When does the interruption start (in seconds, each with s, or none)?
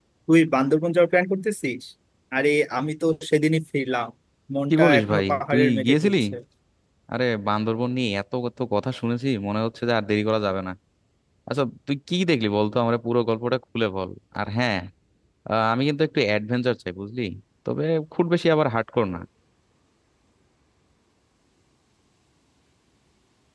4.7 s